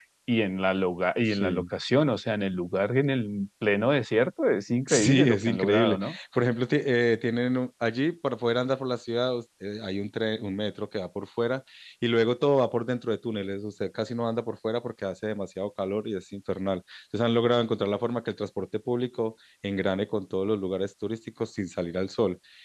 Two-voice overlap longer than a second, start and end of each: 4.9-6.2

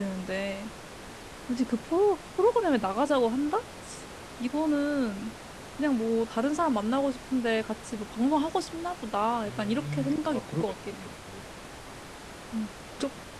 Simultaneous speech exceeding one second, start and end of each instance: 9.4-10.9

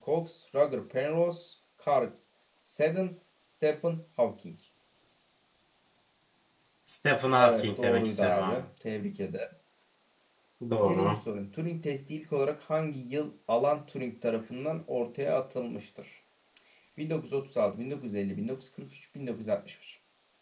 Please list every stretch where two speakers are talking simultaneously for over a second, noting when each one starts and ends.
7.4-8.6

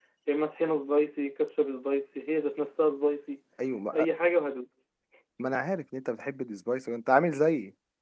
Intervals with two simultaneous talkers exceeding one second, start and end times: none

